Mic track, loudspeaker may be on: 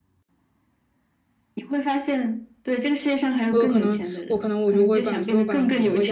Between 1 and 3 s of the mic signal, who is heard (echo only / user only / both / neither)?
echo only